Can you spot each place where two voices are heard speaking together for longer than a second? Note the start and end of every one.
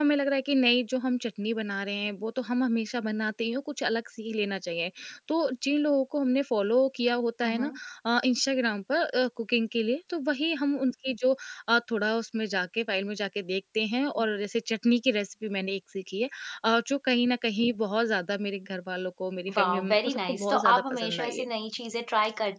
19.6-21.4

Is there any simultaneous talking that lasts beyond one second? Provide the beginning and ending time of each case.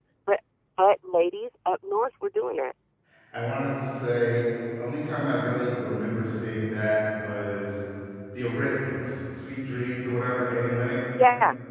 none

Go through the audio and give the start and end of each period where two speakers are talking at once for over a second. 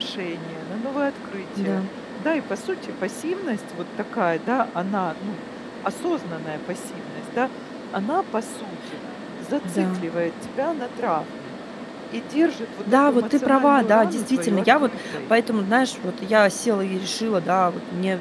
12.9-15.2

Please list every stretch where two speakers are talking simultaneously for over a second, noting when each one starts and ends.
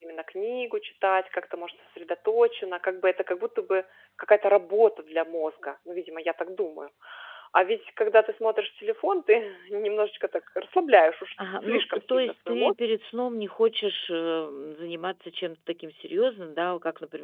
11.4-12.7

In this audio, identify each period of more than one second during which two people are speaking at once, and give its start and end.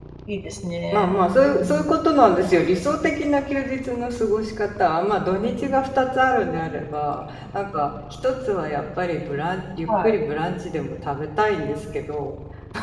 none

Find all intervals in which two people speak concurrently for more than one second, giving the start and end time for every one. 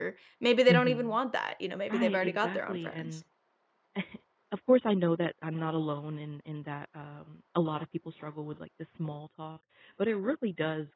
1.9-3.1

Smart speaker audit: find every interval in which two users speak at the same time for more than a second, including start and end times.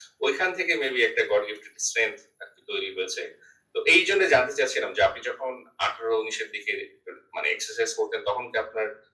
none

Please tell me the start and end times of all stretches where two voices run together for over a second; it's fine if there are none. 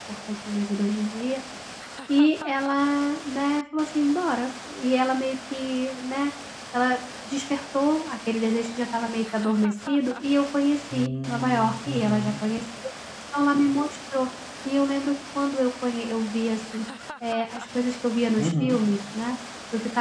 10.9-12.3

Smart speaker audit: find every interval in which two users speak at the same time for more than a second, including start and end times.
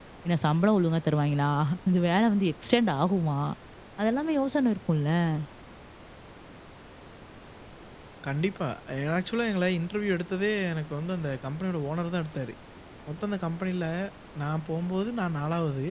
none

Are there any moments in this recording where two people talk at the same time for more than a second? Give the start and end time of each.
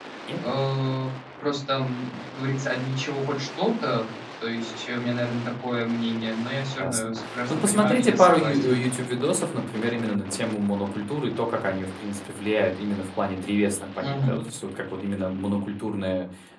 7.5-8.8

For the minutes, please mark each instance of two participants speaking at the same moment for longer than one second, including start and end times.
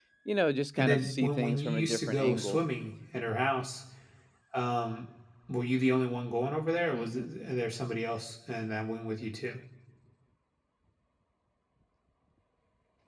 0.8-2.6

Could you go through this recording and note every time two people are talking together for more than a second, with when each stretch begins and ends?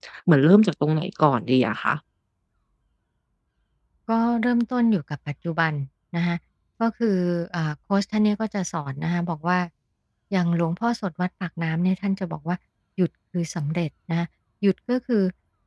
none

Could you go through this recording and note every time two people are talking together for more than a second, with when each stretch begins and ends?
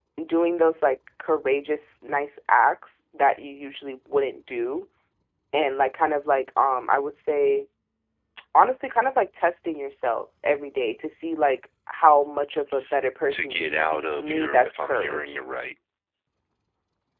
13.3-15.3

